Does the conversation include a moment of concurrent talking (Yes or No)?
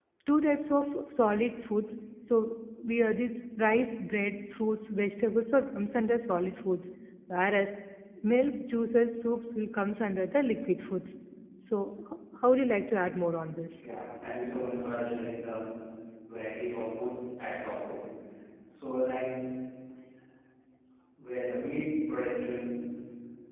No